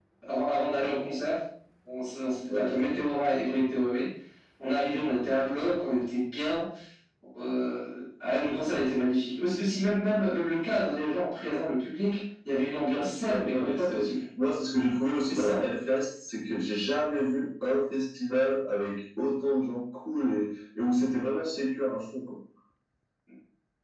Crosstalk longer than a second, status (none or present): present